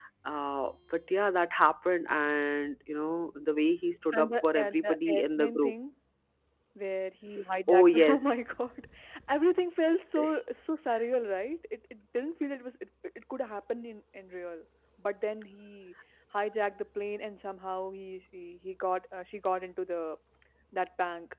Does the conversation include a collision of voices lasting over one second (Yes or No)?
Yes